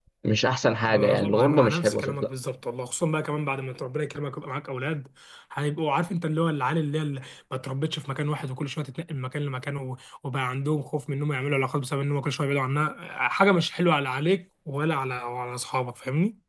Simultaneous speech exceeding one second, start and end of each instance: 0.9-2.3

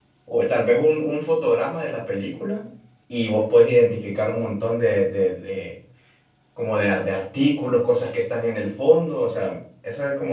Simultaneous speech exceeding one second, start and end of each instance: none

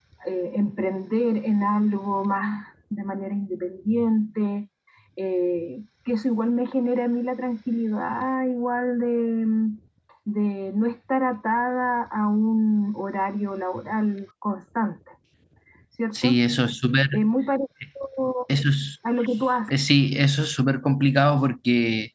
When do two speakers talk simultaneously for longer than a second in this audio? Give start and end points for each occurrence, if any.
none

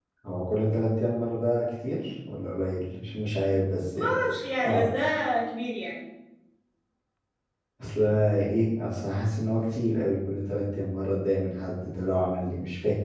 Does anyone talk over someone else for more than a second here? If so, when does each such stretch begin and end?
none

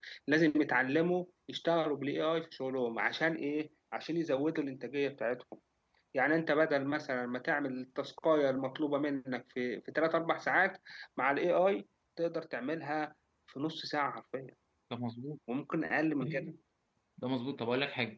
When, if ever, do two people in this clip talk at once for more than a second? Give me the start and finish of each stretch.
none

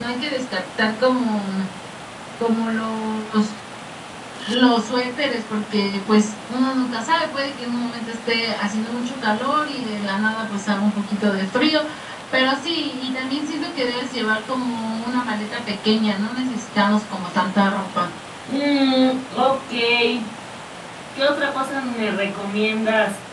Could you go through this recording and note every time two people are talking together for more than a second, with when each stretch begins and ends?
none

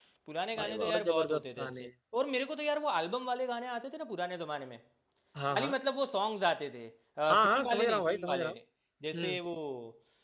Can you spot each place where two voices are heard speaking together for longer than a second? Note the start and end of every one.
0.6-1.9, 7.3-8.6

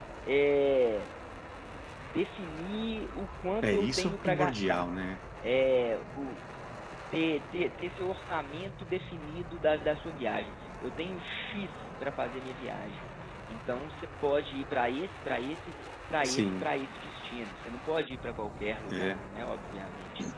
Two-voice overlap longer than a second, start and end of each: 3.6-4.9

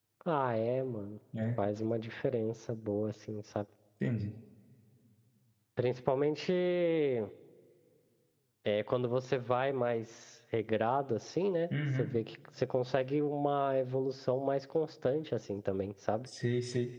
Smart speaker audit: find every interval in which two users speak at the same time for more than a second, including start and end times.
none

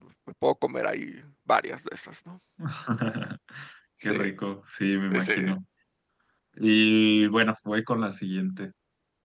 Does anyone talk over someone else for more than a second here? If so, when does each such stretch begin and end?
none

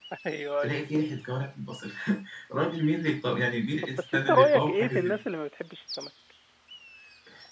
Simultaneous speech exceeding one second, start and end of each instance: 3.8-5.1

